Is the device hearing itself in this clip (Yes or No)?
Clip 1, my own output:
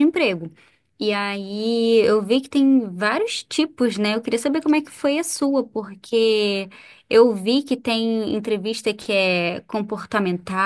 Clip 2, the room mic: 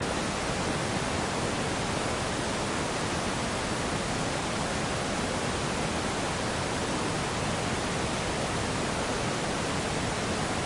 No